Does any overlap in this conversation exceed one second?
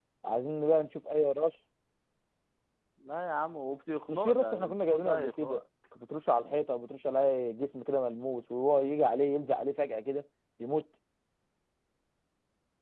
Yes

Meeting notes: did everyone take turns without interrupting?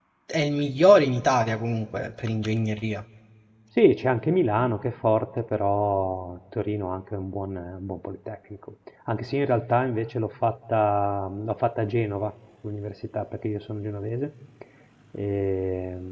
Yes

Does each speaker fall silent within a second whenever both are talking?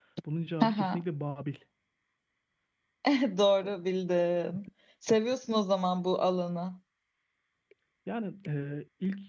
Yes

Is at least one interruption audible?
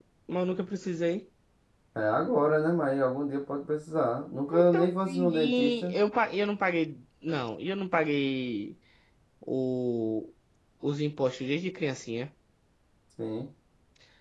Yes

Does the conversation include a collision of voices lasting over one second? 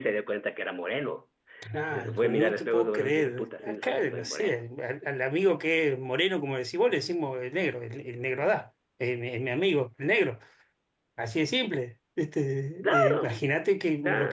Yes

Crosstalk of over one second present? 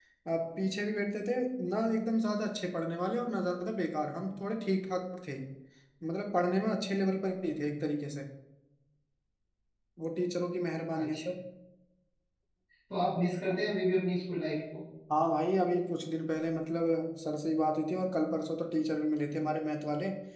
No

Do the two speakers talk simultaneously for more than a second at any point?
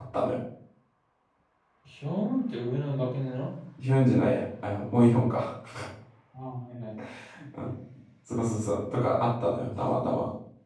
No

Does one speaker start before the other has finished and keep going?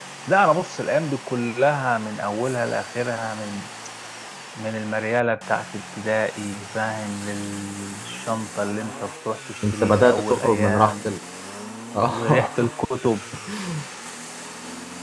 Yes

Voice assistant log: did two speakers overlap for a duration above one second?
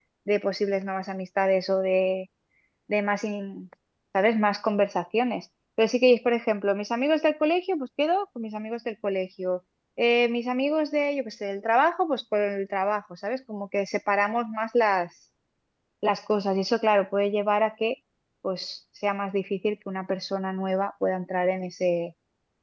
No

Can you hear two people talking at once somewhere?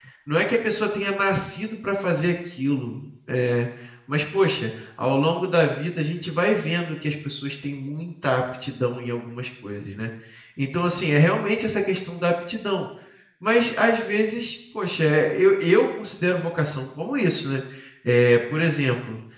No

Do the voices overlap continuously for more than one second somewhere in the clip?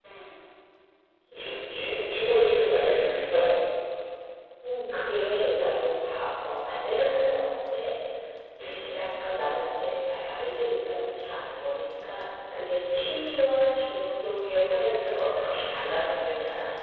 No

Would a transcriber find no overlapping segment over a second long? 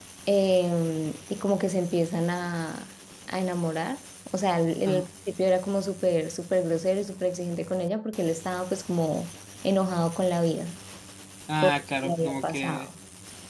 No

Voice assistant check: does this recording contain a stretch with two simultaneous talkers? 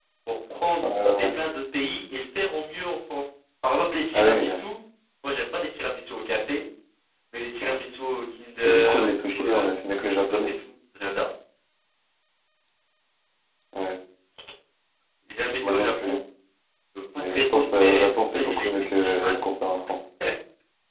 Yes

